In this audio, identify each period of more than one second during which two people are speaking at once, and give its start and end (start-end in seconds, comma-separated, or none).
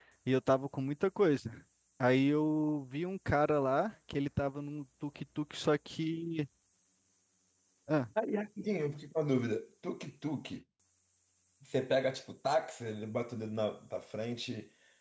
none